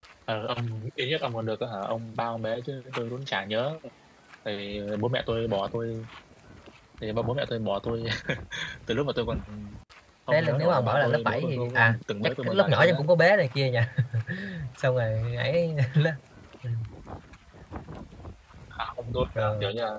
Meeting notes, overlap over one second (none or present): present